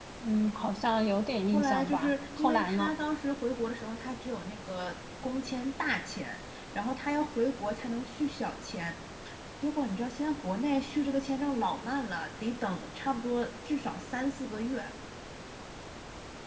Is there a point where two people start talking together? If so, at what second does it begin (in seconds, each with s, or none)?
1.5 s